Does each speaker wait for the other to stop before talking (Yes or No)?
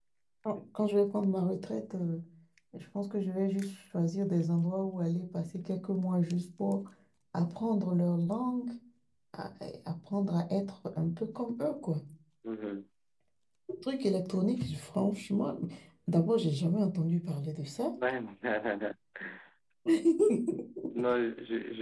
Yes